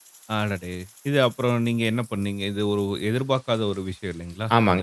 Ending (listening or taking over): taking over